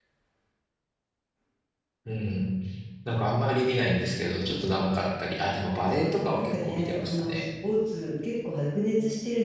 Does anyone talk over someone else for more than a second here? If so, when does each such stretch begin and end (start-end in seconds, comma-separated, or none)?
6.0-7.4